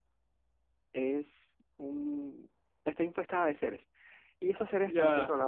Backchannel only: Yes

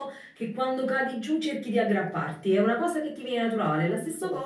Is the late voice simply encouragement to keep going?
Yes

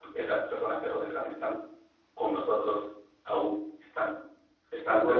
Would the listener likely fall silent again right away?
No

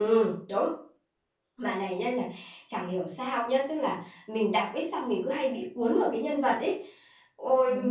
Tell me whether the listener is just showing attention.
Yes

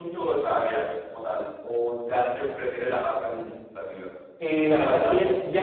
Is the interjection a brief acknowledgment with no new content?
No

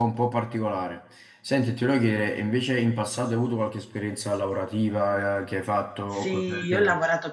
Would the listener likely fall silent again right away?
No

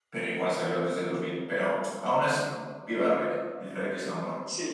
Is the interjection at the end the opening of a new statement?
Yes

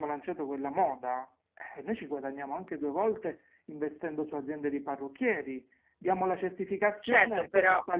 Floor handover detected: Yes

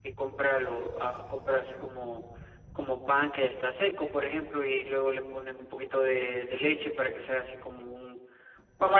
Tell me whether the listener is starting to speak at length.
Yes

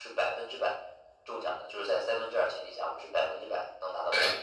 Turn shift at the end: Yes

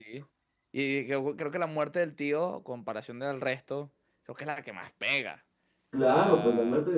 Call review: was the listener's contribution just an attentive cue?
No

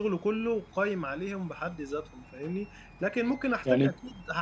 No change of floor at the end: Yes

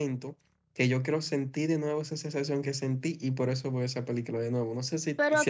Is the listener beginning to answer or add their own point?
Yes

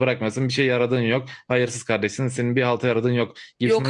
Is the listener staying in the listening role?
Yes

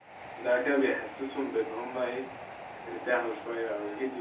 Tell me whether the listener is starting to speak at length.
Yes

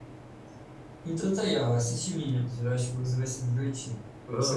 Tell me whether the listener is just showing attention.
No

